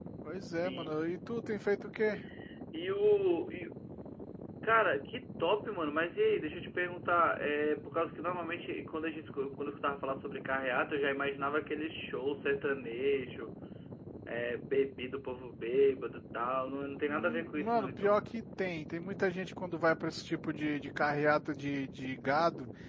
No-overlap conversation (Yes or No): No